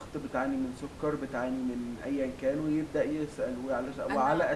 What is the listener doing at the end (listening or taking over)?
listening